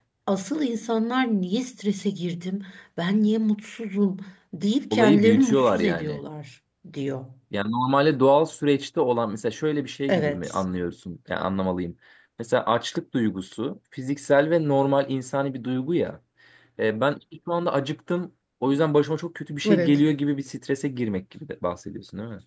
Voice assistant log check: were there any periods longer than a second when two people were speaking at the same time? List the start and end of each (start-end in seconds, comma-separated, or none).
4.9-6.2